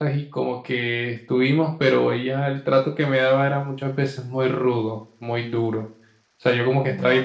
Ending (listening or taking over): listening